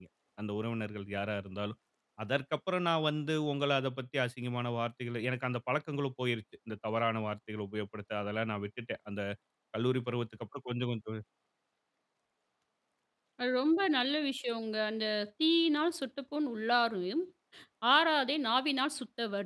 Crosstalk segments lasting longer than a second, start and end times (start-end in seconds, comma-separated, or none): none